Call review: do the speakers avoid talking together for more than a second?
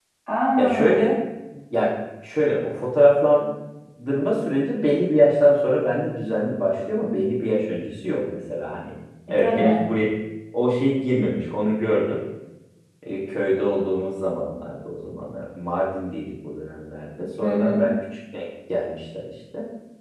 Yes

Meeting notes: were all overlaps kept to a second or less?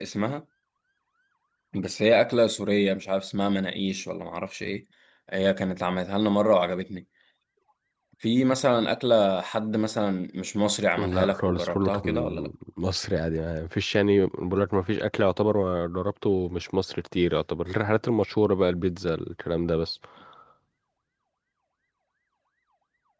No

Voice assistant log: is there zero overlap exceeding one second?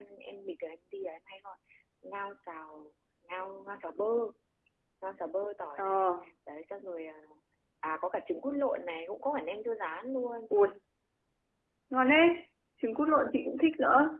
Yes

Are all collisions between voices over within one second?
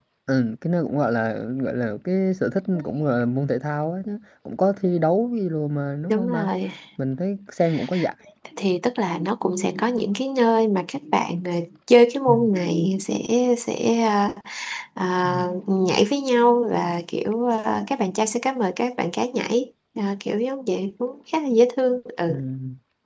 Yes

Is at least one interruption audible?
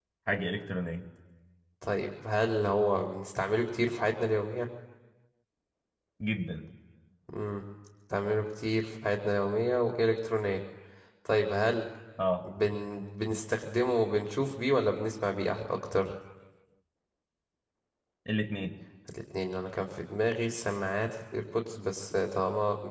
No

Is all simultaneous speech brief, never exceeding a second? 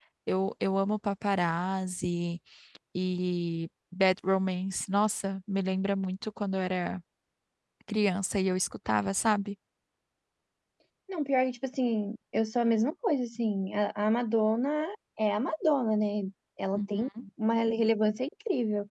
Yes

